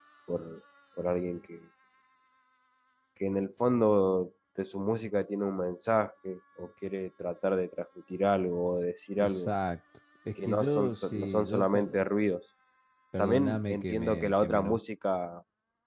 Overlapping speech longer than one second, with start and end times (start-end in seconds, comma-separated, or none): 10.4-11.8, 13.2-14.8